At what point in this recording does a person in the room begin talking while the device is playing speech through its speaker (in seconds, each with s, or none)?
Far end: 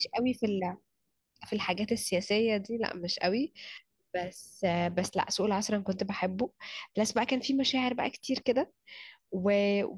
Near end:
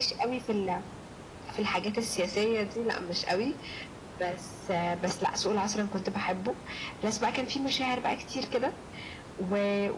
none